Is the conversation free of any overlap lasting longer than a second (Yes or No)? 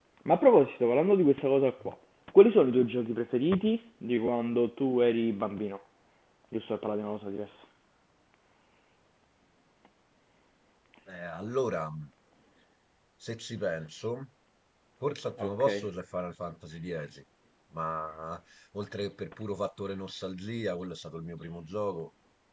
Yes